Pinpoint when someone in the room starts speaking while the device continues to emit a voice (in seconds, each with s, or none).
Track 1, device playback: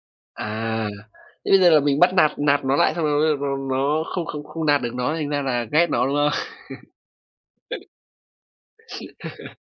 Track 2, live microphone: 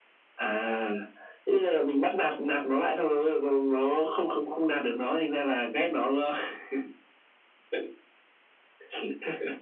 none